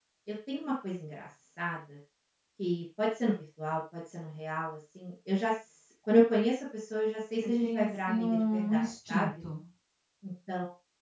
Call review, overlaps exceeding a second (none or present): present